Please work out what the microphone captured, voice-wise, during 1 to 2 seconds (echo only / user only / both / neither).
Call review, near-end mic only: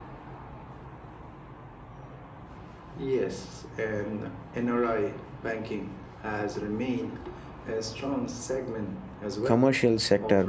neither